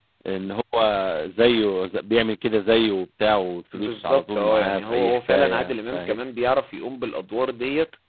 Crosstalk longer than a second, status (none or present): present